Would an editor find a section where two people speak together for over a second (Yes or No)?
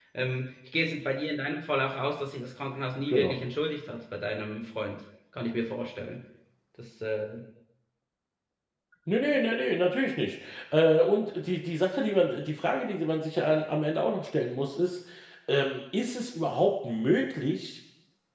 No